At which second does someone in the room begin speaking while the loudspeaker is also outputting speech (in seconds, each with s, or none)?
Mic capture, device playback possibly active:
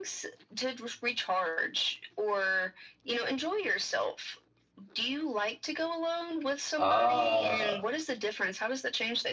6.8 s